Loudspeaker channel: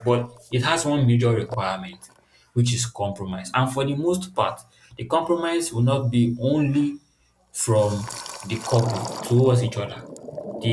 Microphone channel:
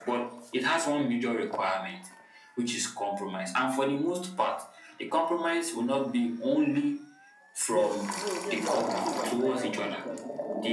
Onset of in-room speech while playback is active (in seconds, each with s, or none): 7.7 s